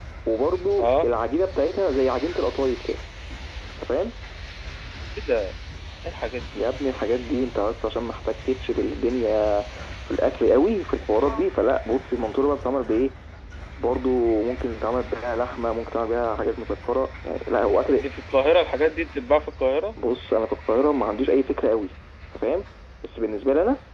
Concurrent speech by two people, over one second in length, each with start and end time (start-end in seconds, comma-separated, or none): none